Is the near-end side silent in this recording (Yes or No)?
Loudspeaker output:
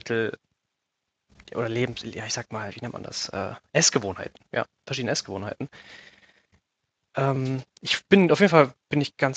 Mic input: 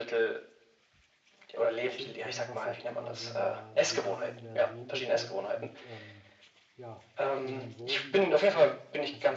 No